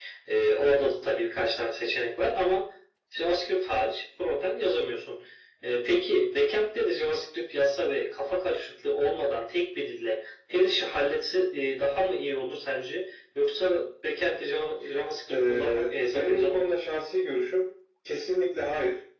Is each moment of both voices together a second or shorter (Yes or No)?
No